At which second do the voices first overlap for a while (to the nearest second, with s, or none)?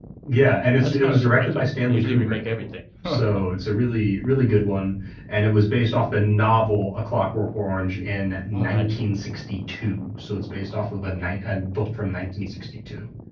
1 s